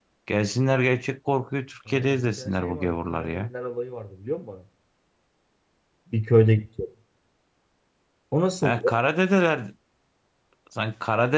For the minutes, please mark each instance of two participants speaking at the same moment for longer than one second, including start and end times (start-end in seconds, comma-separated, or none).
1.9-3.5